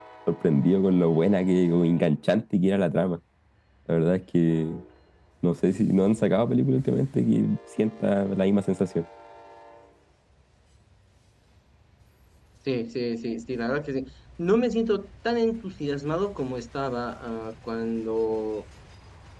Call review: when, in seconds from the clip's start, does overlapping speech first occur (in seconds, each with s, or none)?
none